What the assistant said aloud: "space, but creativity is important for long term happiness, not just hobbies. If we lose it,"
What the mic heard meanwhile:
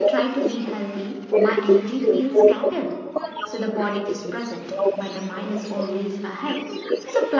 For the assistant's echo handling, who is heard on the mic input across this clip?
both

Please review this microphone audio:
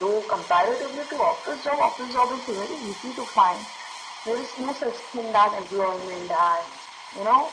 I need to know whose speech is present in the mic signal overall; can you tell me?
echo only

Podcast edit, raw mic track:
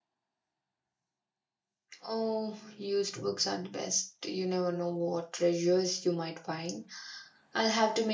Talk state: user only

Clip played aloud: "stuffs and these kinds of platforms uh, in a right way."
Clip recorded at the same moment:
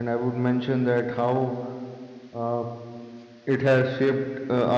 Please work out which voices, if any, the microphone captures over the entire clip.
user only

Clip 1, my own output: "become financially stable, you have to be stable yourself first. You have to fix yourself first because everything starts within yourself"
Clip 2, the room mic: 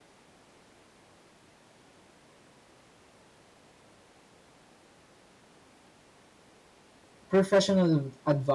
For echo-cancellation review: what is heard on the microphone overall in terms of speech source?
user only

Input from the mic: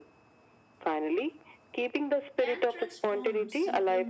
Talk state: both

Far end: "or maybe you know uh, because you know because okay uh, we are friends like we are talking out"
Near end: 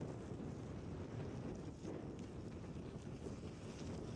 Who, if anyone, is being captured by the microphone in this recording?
neither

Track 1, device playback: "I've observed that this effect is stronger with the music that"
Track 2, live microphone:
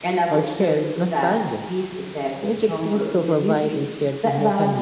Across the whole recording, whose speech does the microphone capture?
both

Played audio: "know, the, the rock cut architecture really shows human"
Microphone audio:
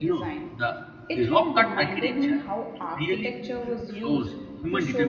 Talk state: both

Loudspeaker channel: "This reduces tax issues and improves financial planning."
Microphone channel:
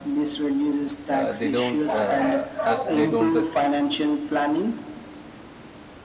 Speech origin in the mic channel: both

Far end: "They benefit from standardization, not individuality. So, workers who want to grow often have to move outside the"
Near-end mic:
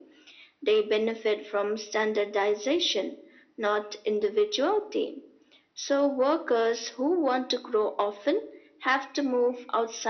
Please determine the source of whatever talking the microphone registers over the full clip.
echo only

